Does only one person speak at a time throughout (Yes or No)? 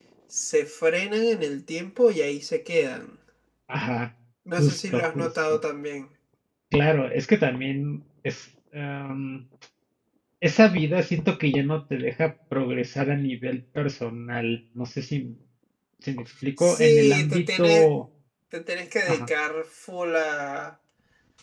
No